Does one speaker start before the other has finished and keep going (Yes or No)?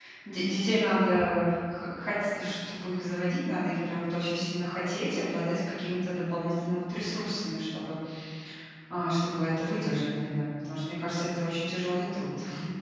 No